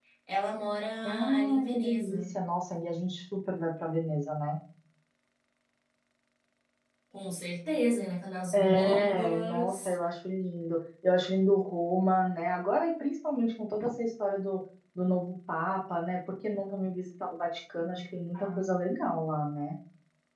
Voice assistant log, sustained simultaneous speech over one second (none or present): present